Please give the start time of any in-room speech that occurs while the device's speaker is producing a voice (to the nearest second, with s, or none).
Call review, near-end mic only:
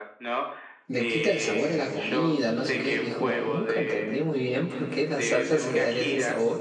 1 s